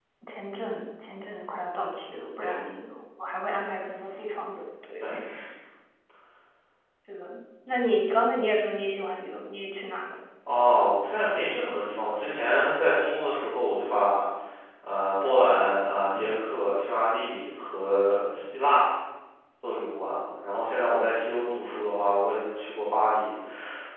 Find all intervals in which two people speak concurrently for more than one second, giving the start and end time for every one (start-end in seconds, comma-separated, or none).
none